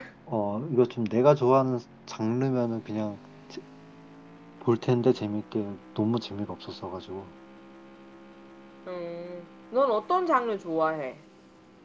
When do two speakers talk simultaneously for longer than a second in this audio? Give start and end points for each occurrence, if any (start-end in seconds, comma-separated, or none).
none